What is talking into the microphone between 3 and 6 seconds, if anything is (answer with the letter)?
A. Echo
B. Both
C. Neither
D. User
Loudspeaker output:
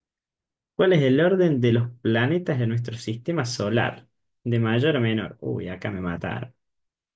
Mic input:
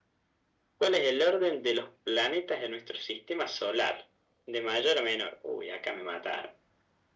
A